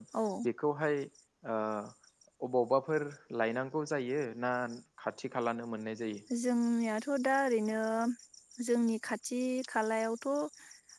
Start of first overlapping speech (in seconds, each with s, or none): none